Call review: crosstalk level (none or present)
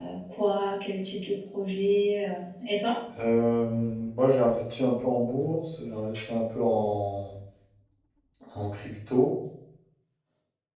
none